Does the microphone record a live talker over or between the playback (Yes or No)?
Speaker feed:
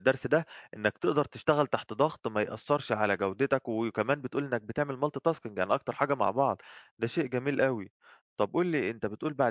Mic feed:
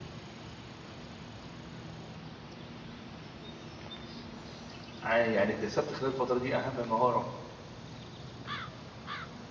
Yes